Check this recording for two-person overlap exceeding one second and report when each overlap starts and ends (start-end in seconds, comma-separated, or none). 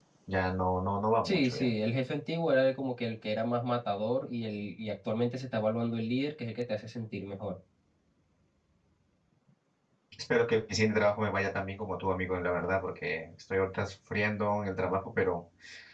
none